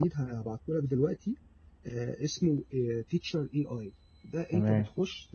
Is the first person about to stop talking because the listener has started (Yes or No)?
No